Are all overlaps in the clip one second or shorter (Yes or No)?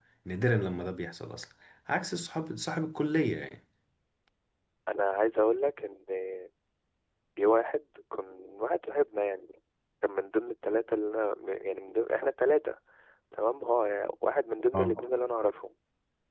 Yes